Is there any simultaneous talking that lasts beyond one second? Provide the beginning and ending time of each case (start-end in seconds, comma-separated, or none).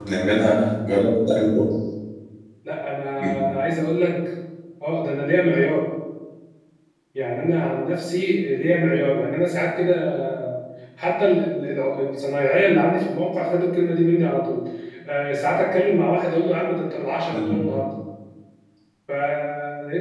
none